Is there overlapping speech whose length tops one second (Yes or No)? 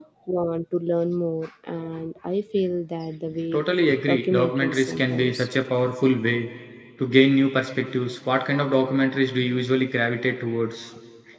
Yes